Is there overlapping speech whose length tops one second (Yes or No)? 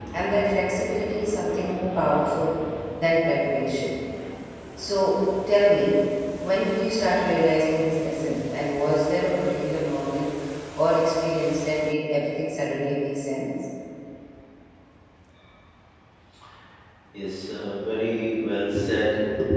No